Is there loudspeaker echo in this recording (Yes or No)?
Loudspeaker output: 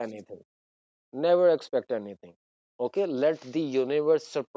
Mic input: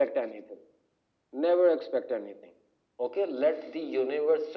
Yes